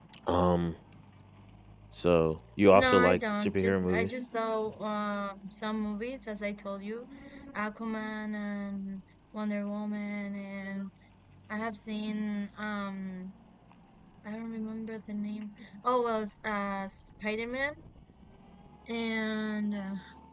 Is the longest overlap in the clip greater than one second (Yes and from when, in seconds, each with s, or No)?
Yes, from 2.7 s